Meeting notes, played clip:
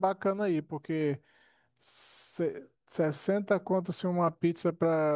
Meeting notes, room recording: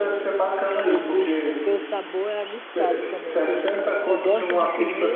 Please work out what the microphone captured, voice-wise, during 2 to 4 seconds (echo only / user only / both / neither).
both